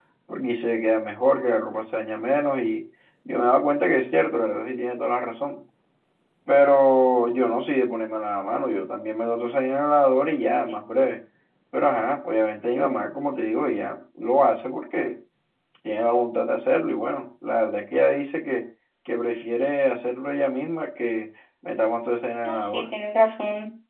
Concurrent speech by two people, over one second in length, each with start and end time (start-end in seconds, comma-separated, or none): none